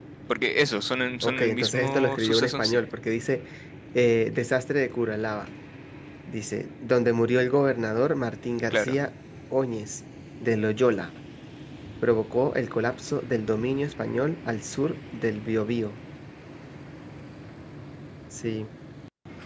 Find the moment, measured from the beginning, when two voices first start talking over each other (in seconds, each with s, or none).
1.2 s